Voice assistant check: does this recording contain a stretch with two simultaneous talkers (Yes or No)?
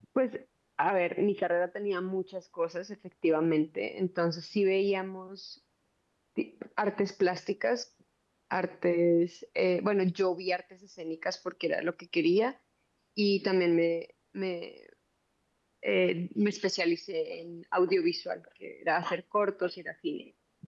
No